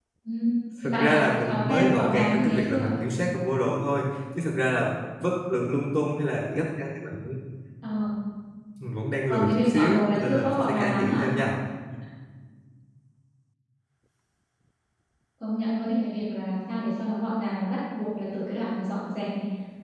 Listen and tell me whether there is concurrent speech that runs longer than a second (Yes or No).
Yes